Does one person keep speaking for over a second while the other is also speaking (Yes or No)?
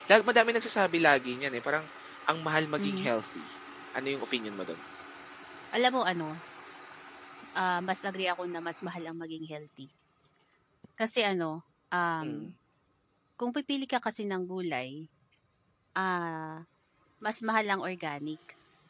No